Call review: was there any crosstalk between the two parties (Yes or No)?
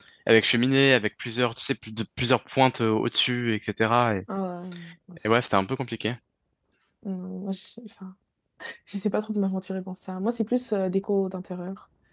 No